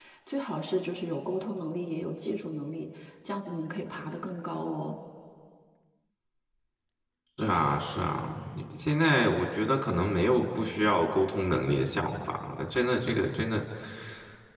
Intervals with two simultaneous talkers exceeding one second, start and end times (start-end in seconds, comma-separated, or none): none